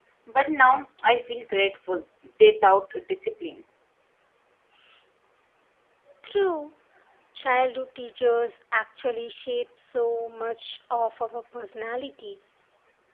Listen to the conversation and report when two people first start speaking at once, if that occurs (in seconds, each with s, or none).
none